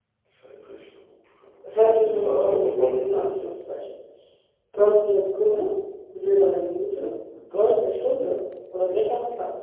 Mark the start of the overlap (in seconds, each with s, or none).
1.6 s